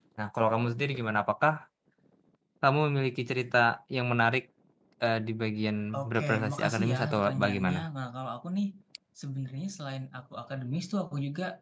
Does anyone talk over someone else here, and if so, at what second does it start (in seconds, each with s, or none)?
5.9 s